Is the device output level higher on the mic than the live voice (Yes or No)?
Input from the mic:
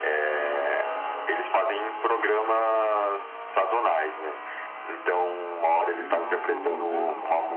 Yes